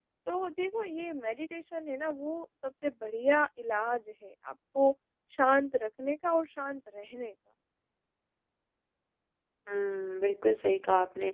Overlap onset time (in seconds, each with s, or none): none